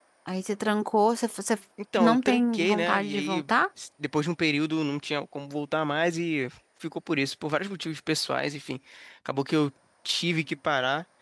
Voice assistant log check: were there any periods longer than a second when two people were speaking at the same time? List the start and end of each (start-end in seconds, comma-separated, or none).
2.0-3.5